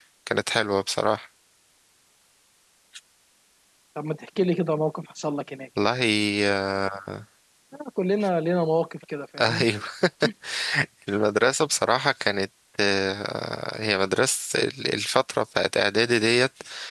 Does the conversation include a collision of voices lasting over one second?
No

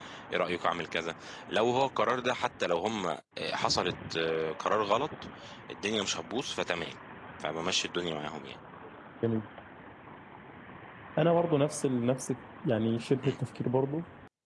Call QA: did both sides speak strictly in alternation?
Yes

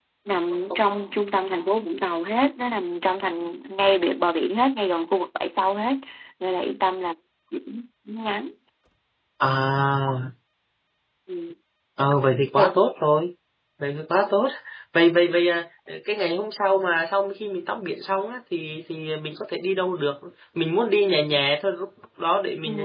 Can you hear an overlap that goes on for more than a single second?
No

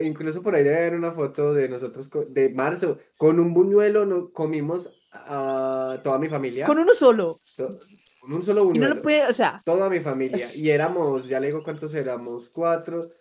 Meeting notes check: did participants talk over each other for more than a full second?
No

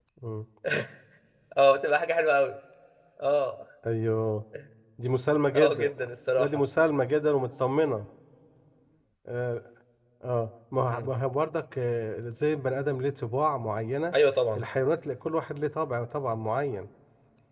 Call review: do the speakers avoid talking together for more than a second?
Yes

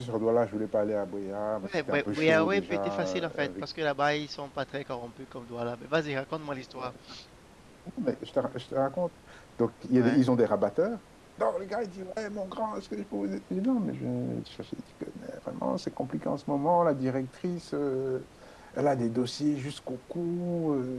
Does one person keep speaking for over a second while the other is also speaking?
Yes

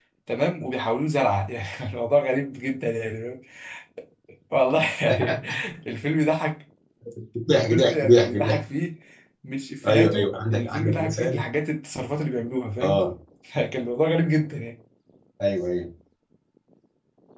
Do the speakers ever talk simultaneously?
Yes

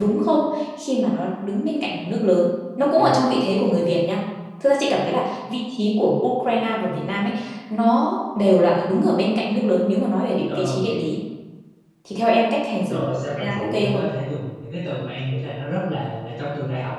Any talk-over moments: Yes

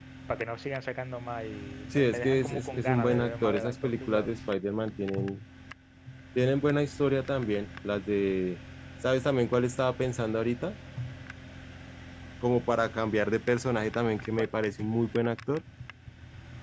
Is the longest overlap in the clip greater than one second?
Yes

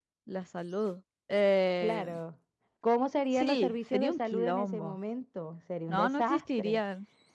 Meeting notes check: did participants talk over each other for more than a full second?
Yes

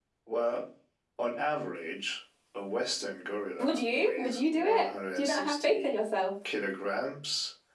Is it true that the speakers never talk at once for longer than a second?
No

